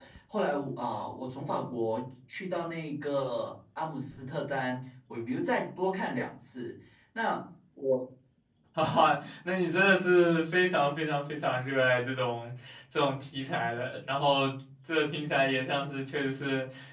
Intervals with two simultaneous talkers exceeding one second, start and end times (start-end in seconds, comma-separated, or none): none